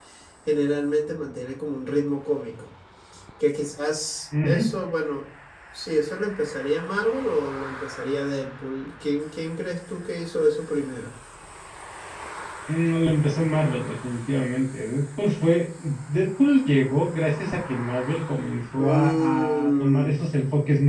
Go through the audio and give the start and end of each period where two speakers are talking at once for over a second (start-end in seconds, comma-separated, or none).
18.8-20.1